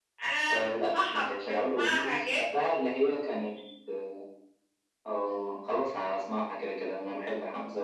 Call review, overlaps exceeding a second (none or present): present